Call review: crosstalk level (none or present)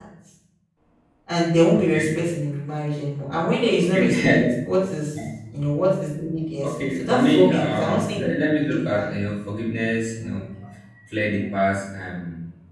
present